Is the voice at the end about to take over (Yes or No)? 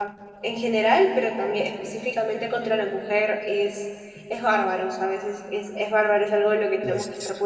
No